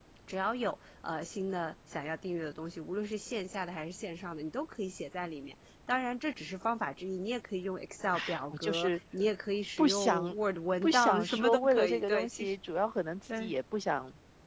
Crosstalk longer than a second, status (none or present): present